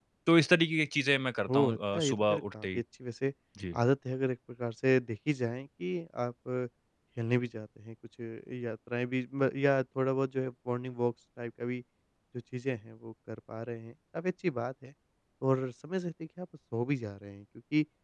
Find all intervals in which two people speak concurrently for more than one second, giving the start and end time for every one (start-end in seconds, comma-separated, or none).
1.5-2.8